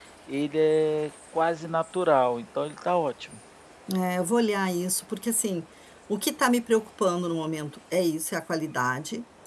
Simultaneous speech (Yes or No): No